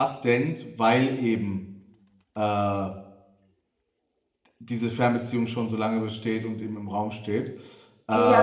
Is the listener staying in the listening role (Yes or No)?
No